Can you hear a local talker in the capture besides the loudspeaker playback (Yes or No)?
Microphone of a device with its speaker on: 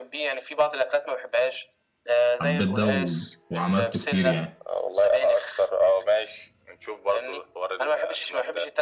Yes